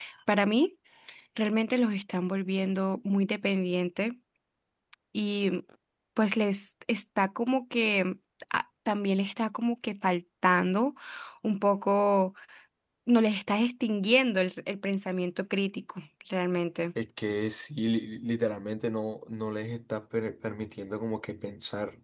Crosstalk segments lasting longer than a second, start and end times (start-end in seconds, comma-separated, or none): none